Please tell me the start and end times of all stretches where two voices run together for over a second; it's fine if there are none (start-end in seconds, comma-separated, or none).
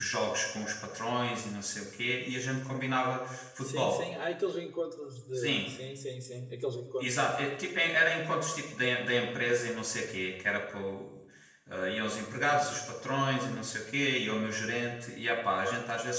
none